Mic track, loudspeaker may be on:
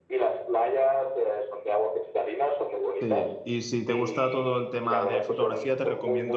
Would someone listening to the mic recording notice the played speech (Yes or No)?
Yes